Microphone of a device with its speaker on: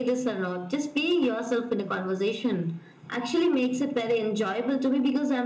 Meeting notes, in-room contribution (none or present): none